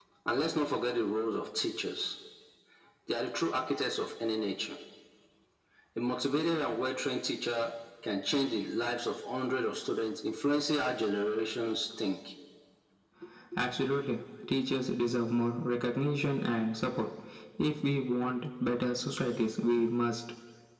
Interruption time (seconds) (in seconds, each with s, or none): none